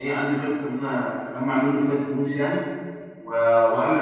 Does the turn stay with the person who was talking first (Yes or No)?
Yes